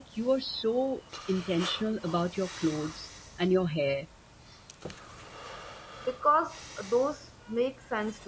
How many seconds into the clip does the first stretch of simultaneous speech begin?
none

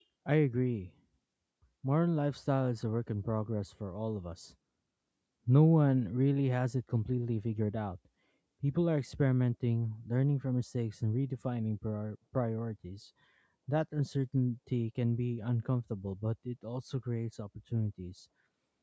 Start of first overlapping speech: none

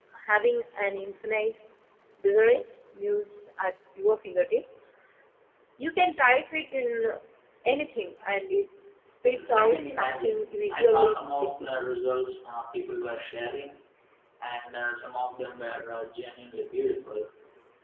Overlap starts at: 9.3 s

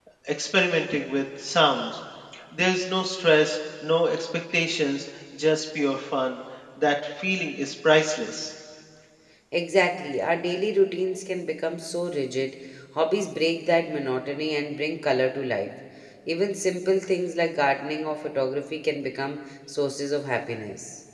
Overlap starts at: none

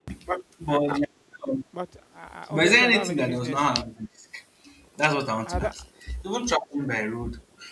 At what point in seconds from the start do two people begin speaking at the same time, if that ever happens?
2.5 s

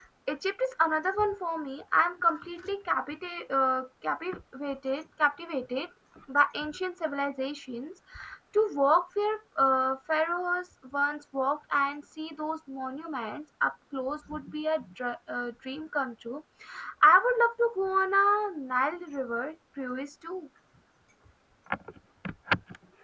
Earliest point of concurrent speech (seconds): none

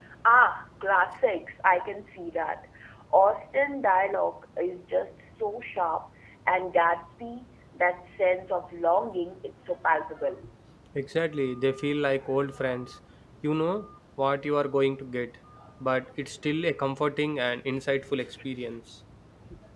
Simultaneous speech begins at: none

